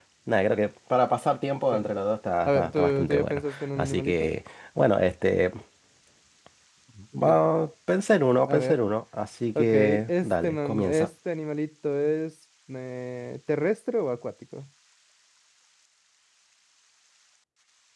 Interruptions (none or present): present